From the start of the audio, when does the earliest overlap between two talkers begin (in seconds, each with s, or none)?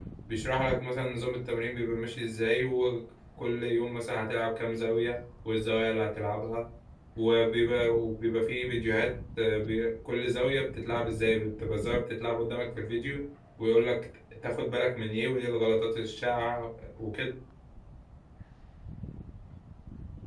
none